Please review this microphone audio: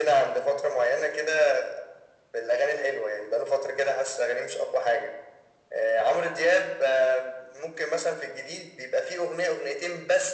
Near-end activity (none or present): none